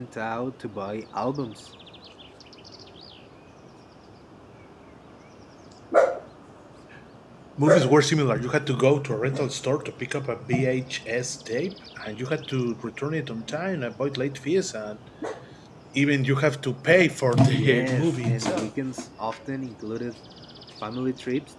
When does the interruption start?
17.5 s

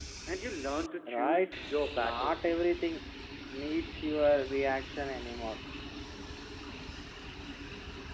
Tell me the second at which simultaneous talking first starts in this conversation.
1.1 s

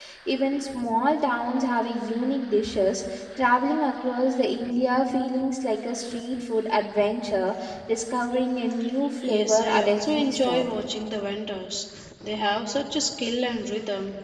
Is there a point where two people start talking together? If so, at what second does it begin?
9.2 s

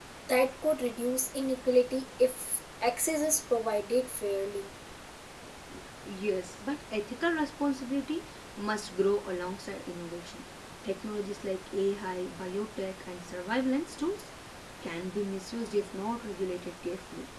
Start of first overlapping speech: none

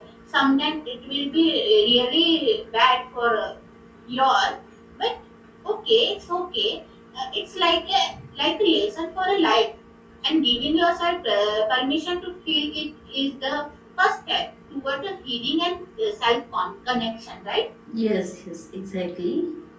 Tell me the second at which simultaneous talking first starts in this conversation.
none

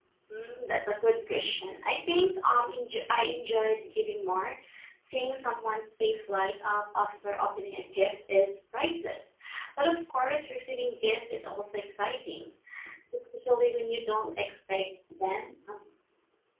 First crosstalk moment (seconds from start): none

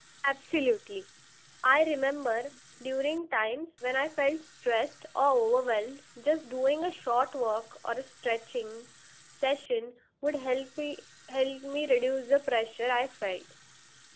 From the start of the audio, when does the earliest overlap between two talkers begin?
none

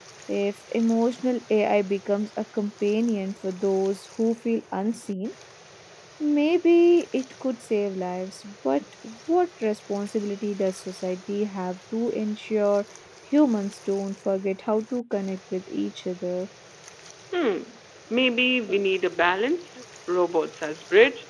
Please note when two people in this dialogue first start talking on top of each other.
none

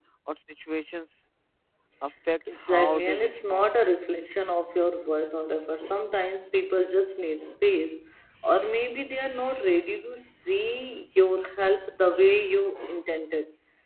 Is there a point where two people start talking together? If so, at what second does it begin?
2.5 s

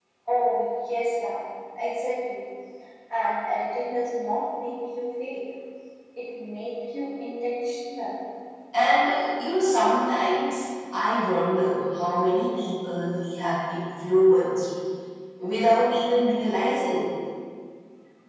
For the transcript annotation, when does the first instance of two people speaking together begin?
none

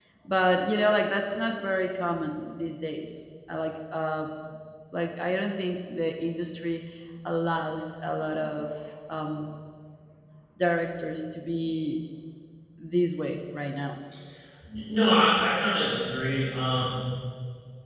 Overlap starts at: none

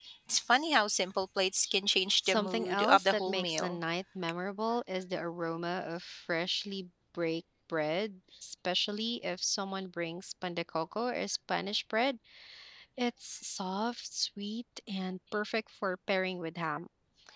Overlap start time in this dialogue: 2.2 s

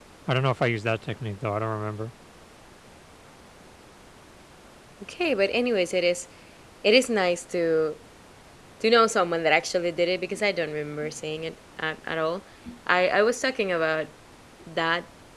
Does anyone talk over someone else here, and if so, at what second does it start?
none

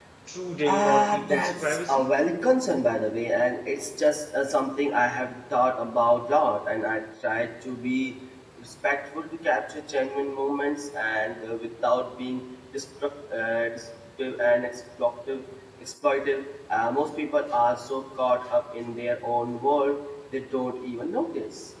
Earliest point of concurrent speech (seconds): 0.7 s

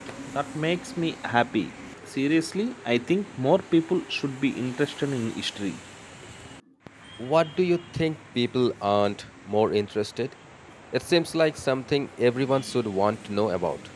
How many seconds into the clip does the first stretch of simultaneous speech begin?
none

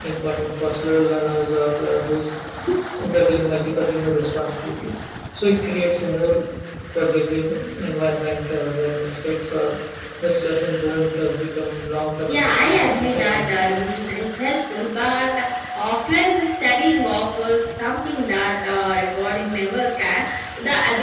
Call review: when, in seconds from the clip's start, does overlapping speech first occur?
12.3 s

